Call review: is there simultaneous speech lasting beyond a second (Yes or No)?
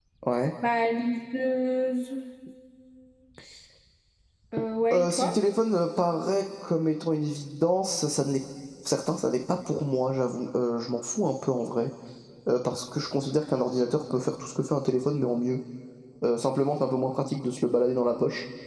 No